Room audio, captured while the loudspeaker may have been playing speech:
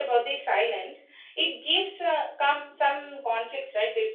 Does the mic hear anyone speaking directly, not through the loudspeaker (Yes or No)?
Yes